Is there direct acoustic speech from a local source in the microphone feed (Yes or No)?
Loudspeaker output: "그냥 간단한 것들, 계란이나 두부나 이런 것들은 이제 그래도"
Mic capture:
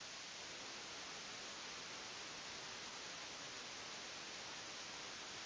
No